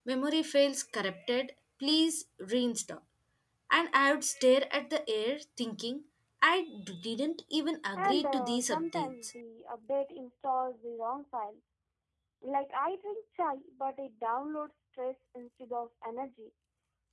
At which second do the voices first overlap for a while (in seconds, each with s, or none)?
8.0 s